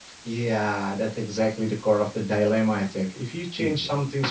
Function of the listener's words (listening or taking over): listening